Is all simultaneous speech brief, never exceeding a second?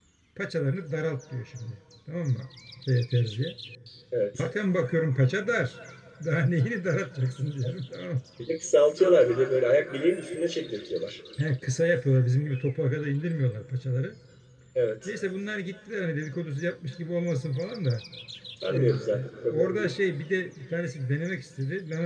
No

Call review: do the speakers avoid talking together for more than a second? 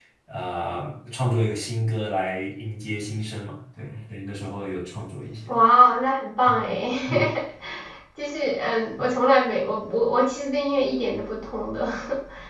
Yes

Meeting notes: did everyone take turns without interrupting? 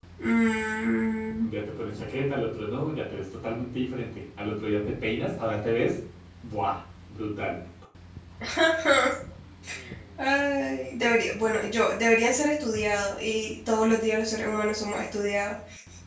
Yes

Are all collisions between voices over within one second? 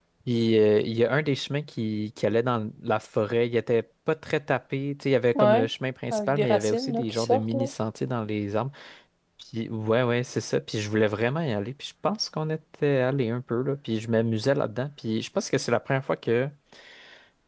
No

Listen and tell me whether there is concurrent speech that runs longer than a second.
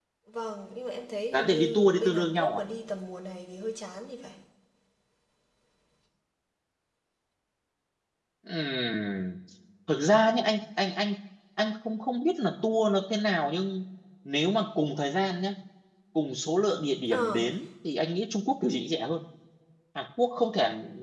Yes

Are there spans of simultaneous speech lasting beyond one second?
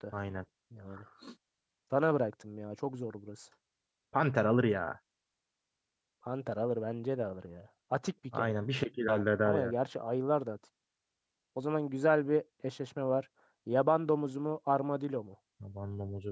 No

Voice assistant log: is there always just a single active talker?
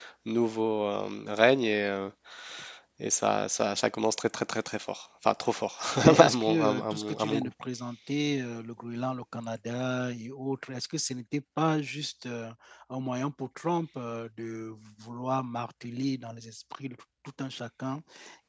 No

